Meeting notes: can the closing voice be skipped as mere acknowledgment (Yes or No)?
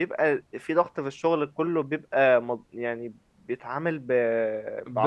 No